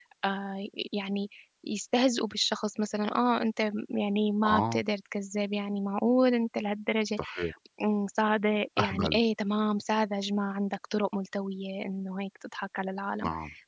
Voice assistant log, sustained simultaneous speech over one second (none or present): none